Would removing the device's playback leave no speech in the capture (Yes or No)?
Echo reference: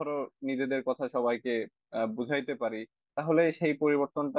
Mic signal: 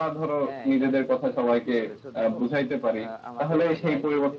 No